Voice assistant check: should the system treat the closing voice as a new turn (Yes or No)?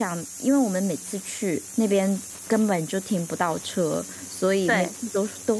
No